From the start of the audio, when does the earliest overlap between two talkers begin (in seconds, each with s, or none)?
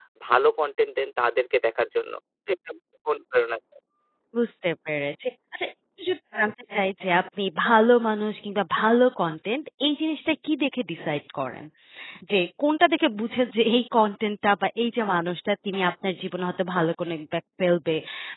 none